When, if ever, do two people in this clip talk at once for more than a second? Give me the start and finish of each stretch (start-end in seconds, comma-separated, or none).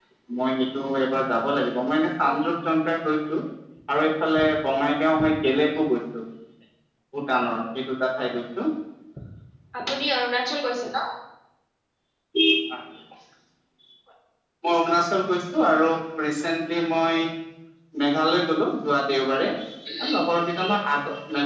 none